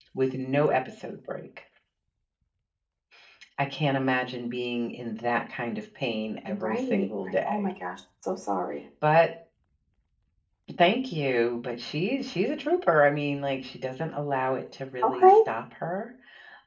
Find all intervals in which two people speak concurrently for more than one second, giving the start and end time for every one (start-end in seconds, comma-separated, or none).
6.5-7.7